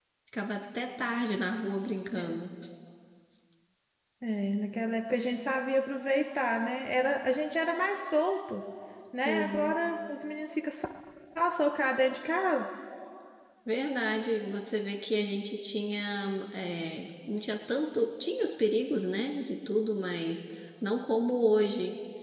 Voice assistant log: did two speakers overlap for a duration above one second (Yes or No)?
No